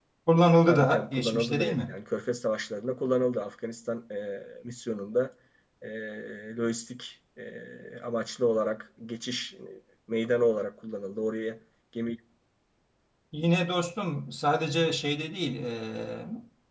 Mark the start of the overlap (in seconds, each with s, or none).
0.7 s